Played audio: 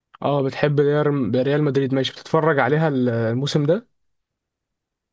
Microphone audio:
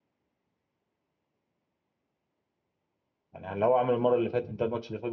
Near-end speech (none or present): present